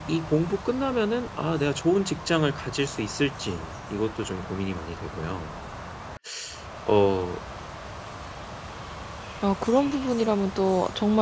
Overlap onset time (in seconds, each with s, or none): none